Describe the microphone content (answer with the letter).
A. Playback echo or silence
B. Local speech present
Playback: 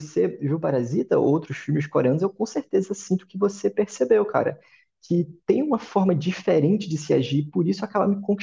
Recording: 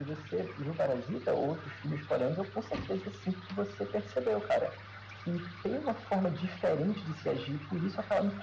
A